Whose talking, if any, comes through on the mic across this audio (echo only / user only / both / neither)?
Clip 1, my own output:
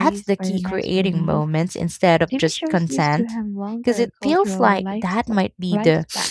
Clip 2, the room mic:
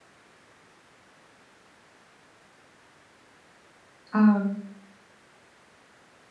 user only